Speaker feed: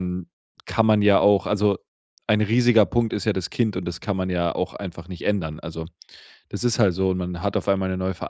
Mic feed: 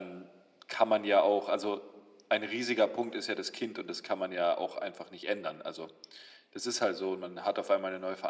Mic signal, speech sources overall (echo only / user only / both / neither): echo only